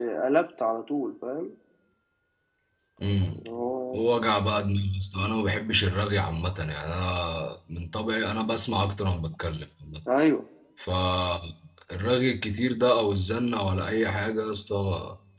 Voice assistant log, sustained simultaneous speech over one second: none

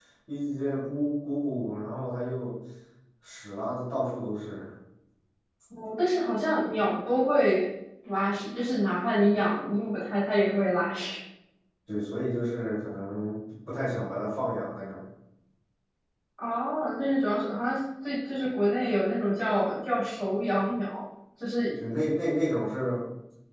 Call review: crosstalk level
none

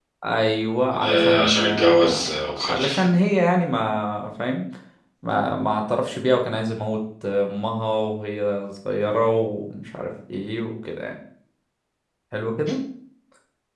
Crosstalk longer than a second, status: present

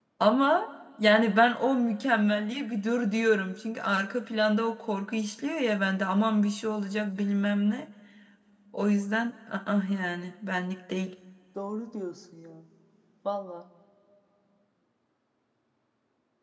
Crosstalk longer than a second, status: none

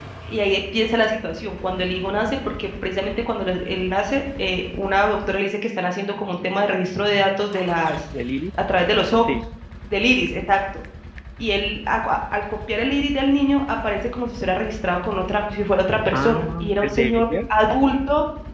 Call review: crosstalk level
present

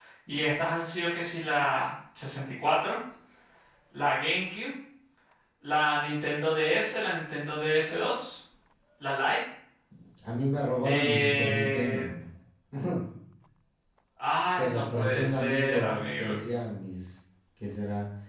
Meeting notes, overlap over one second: present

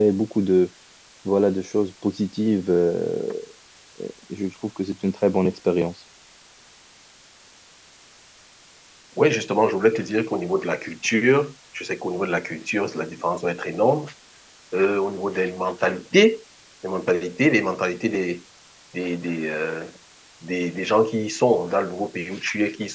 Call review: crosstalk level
none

